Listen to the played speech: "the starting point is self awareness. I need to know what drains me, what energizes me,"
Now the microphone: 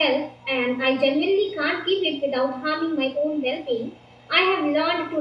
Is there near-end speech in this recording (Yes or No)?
Yes